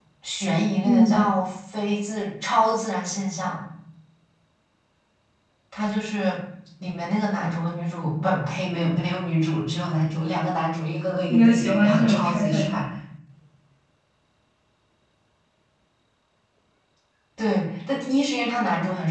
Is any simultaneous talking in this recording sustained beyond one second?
Yes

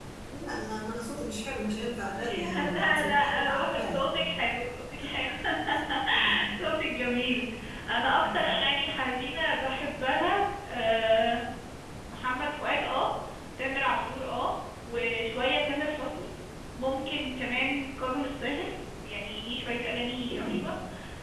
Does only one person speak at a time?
No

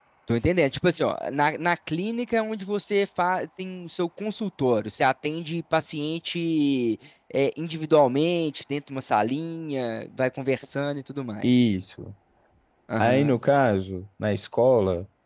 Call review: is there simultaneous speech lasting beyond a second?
No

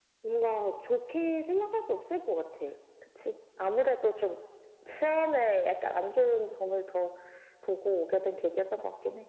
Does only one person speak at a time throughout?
Yes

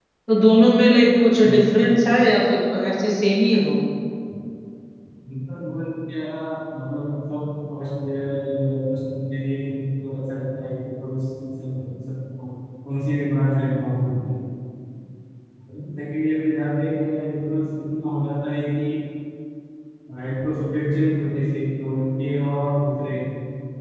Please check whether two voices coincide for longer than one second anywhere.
No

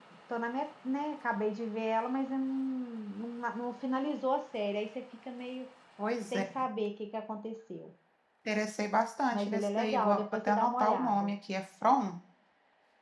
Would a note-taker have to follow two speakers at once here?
Yes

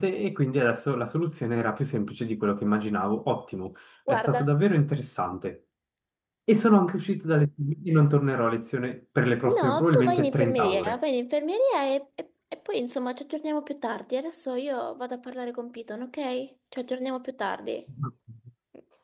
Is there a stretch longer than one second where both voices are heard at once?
Yes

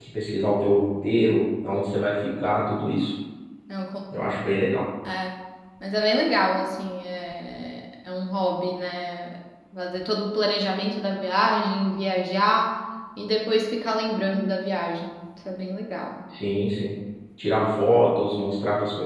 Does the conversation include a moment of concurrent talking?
No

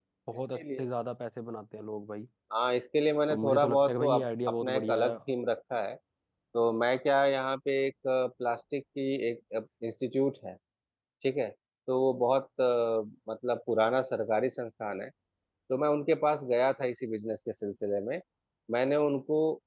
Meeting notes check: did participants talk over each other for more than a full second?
Yes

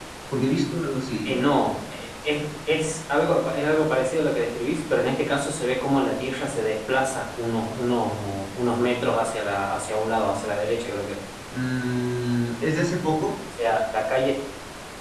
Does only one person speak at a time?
Yes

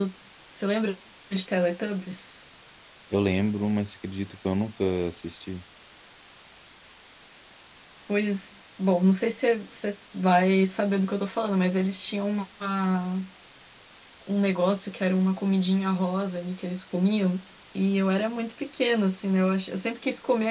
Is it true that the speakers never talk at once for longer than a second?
Yes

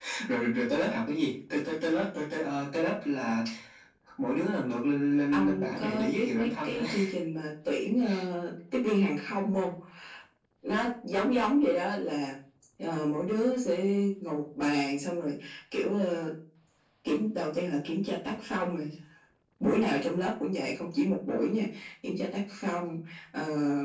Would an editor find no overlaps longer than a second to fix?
No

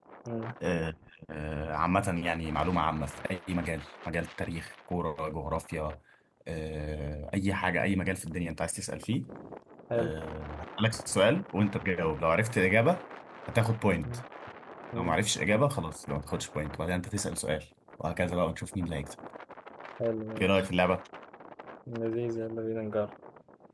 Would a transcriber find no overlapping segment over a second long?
Yes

